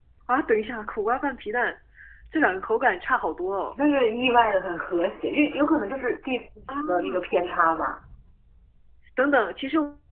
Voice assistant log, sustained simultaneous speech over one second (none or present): none